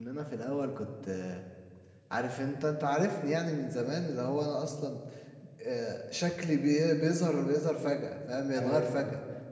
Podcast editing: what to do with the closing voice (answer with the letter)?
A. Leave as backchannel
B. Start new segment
A